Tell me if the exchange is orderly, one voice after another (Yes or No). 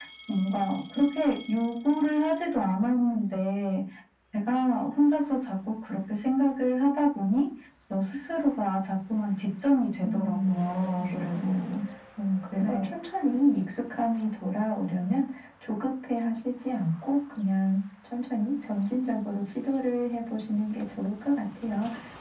No